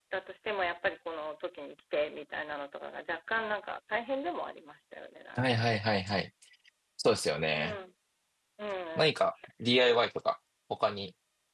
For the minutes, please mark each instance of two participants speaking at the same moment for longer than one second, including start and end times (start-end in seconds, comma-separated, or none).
none